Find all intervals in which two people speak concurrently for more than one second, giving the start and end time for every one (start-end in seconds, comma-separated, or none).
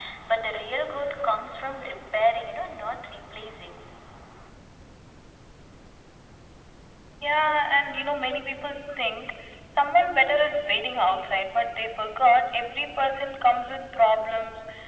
none